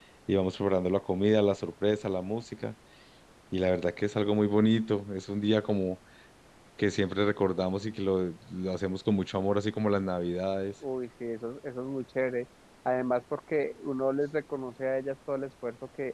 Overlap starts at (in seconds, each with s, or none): none